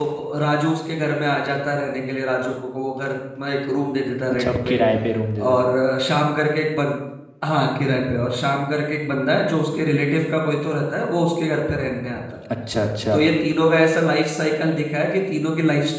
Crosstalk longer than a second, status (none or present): none